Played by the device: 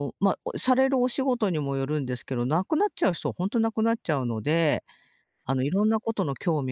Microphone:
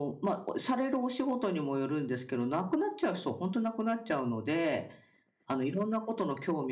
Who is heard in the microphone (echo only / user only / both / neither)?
echo only